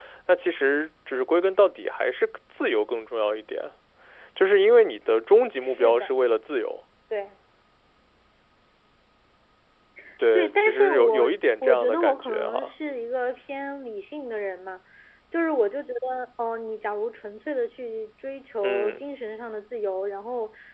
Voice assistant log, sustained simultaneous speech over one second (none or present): present